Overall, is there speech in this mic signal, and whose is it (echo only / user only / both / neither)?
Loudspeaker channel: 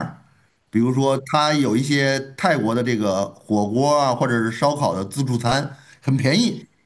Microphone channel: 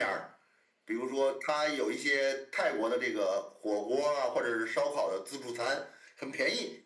echo only